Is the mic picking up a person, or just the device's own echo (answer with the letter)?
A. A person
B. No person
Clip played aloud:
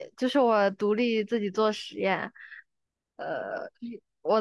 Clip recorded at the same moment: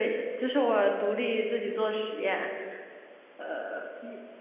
B